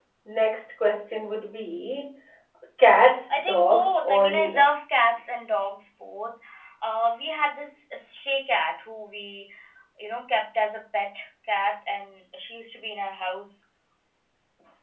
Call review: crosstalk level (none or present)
present